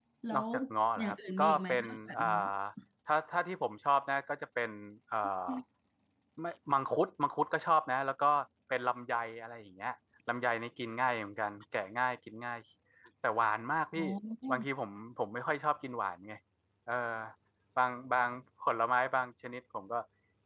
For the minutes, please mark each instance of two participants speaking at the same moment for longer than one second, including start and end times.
1.0-2.2

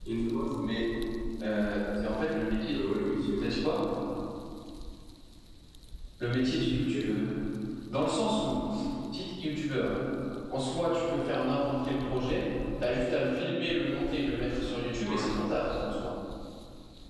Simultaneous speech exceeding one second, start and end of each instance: none

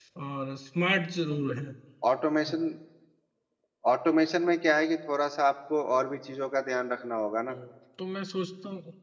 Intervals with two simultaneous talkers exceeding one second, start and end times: none

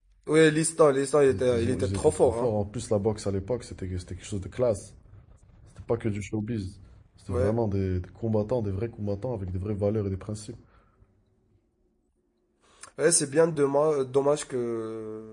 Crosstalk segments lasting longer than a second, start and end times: 1.3-2.5

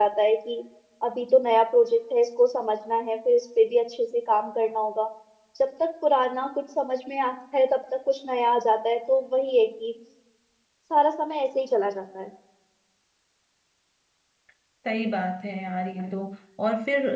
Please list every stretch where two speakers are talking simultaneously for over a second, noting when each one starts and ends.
none

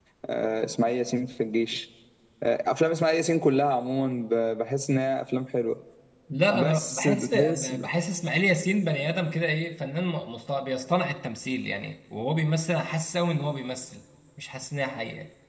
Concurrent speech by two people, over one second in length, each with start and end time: 6.5-7.7

